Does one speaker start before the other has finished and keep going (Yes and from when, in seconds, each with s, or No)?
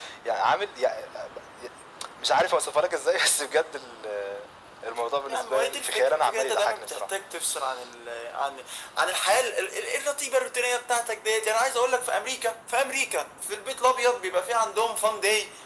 Yes, from 5.3 s